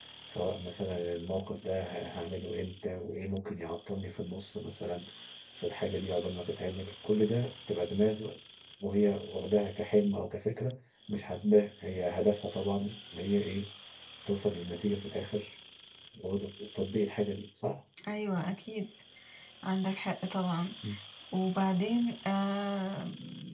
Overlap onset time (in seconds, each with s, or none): none